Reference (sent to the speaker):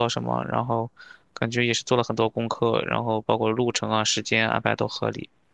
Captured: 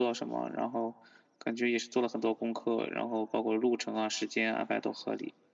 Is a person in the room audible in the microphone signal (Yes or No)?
No